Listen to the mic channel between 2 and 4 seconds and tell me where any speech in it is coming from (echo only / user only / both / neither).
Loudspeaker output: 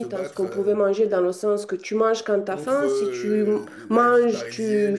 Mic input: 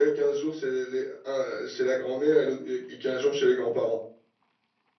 user only